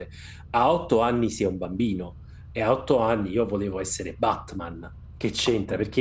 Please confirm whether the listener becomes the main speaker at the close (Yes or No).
No